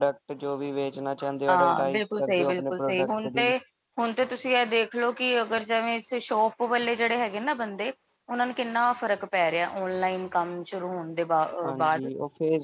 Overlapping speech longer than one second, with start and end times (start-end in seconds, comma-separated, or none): 1.5-3.5